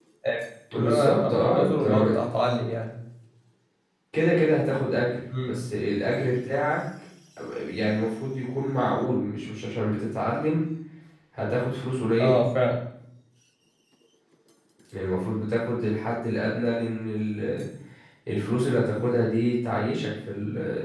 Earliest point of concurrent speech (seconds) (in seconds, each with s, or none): 0.8 s